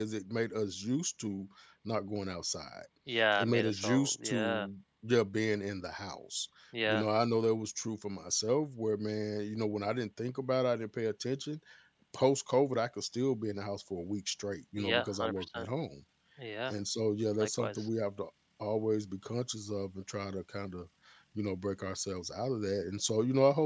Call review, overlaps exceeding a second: present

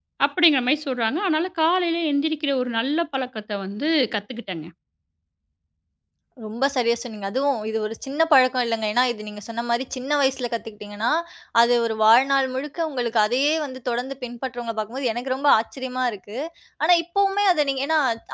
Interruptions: none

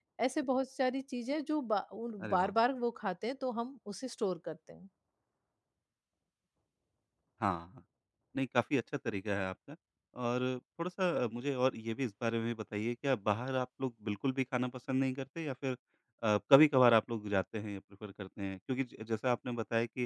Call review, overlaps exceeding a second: none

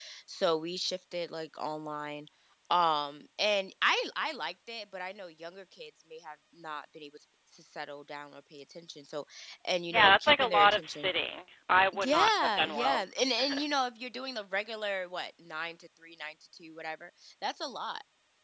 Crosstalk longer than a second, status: present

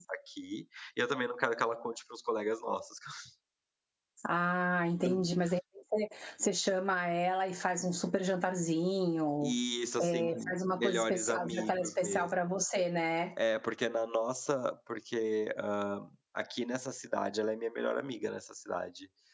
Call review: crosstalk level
present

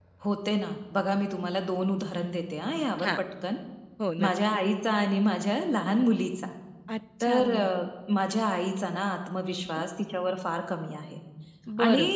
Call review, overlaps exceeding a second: none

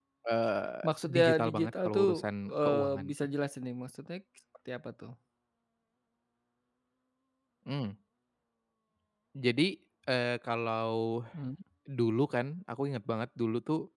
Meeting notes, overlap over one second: present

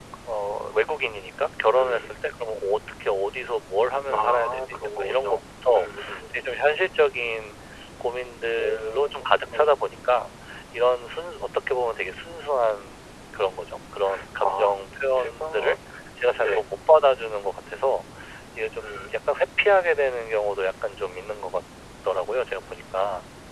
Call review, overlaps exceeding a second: present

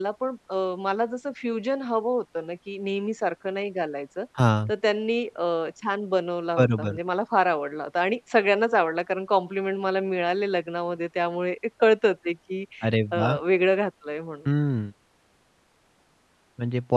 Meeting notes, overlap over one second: none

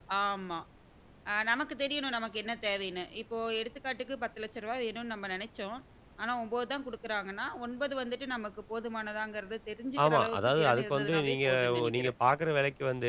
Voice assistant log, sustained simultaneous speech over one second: present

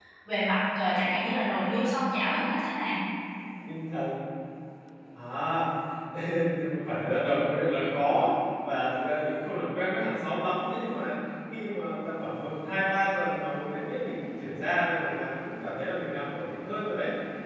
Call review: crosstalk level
none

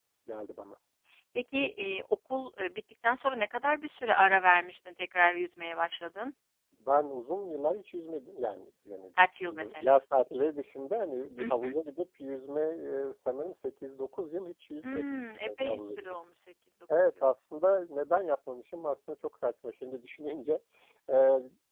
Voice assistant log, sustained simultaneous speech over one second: present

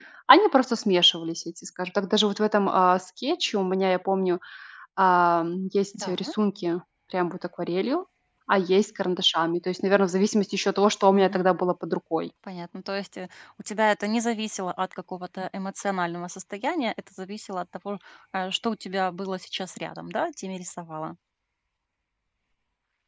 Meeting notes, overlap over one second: none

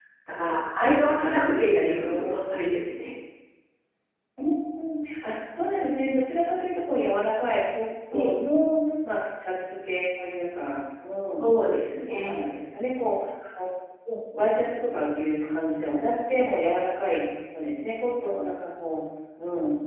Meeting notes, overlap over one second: present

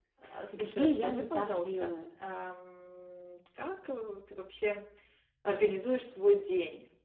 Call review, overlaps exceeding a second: present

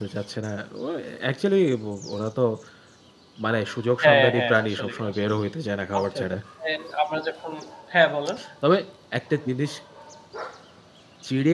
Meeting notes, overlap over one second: present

